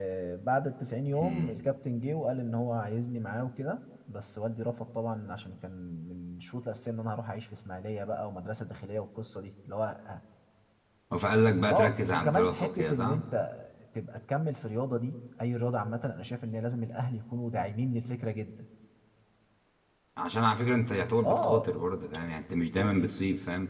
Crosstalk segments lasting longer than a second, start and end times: 11.7-13.2

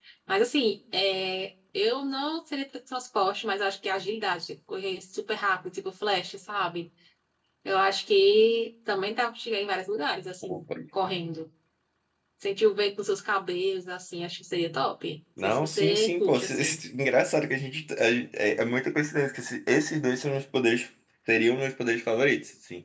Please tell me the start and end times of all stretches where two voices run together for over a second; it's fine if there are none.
15.4-16.8

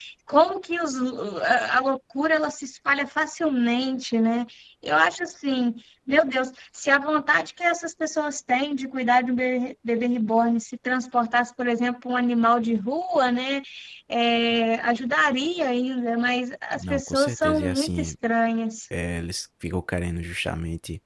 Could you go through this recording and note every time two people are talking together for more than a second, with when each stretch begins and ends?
16.8-18.1

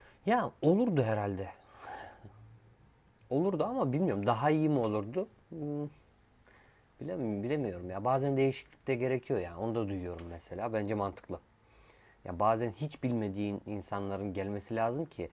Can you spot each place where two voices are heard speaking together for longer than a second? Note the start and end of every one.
none

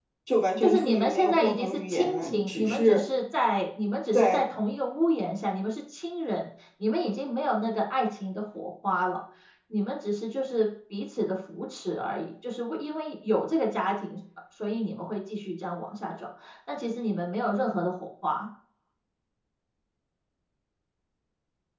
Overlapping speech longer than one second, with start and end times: 0.6-3.0

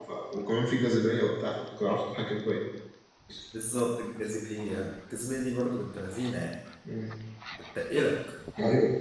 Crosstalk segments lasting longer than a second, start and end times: none

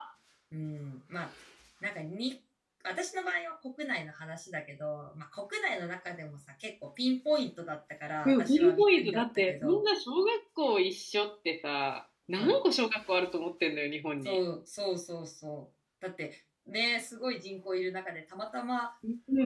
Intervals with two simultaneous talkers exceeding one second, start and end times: 8.2-9.8

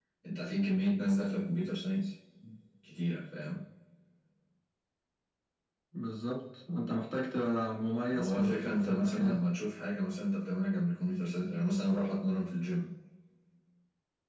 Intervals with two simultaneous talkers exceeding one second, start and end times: 8.2-9.4

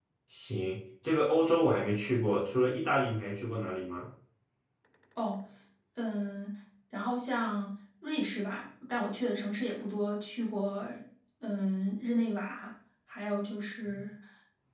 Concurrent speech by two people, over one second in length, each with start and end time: none

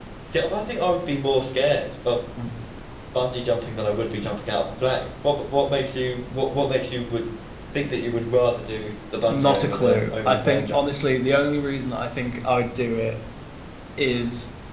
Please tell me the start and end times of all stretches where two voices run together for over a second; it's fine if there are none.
9.3-10.8

